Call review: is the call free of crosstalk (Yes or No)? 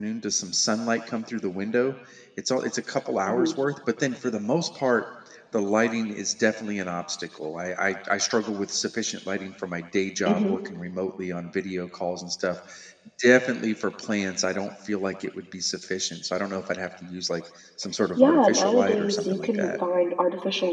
No